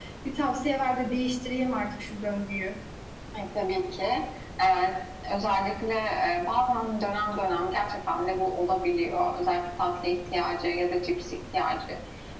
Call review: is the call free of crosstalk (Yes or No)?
Yes